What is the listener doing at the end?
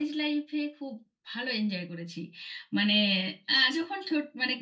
listening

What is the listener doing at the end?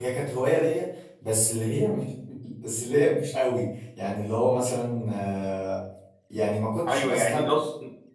taking over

